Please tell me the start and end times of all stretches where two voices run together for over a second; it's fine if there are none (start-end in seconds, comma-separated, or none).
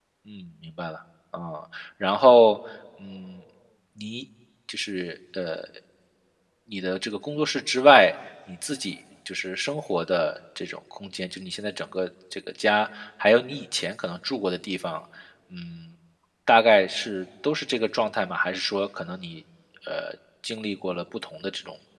none